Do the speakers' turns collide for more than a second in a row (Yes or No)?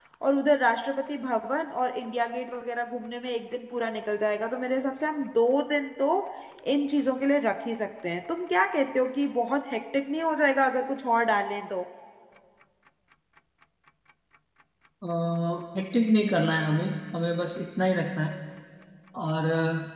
No